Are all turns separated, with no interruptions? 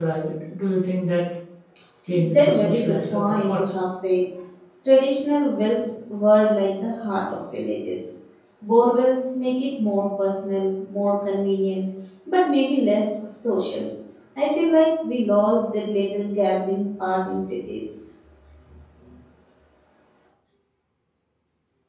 No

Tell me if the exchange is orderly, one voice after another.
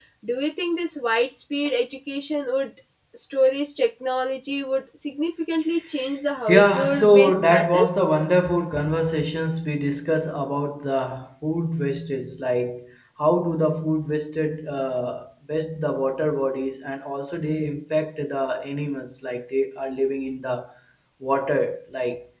No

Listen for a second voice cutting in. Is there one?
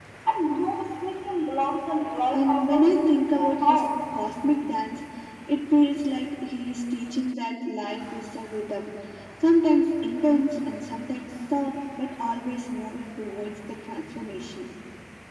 Yes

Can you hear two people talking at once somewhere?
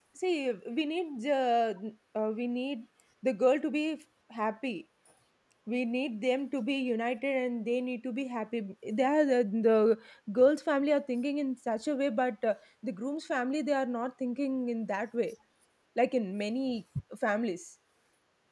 No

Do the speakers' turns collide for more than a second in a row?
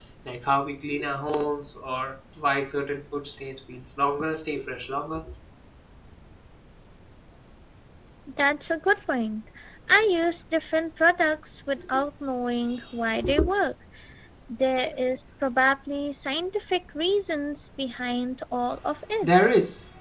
No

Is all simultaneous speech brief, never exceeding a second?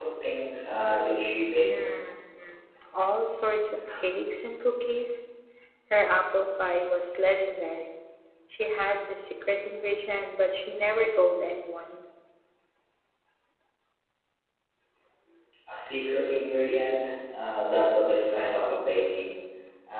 Yes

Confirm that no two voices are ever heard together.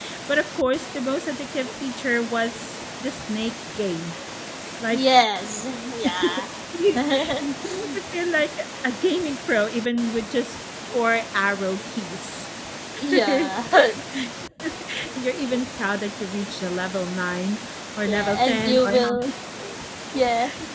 No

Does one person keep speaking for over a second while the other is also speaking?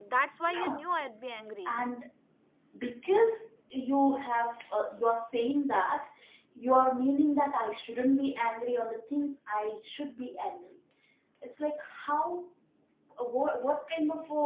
No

